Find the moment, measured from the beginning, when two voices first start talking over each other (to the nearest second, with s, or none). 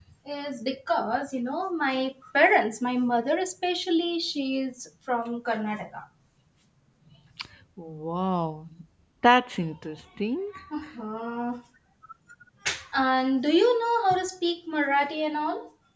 none